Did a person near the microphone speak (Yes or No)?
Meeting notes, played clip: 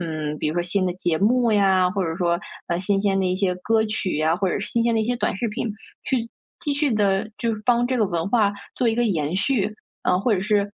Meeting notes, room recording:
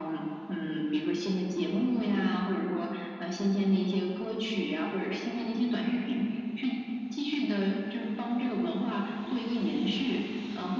No